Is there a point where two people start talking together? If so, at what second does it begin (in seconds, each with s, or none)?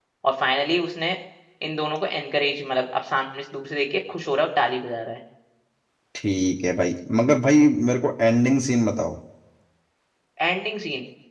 none